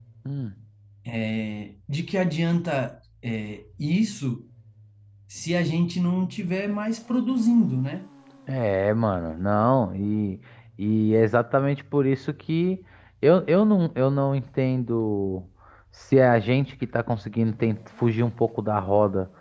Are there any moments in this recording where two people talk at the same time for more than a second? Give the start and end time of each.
none

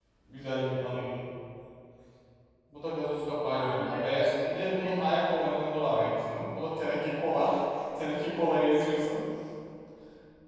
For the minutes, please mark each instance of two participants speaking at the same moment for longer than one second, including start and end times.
3.6-5.3

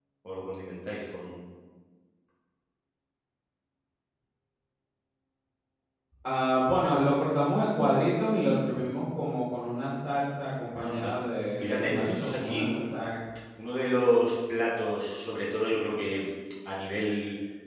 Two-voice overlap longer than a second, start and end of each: 11.6-12.9

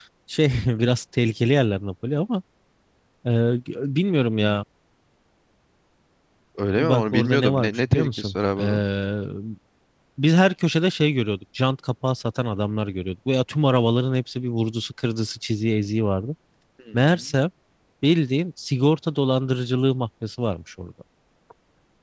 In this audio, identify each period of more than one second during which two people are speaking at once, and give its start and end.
6.8-8.8

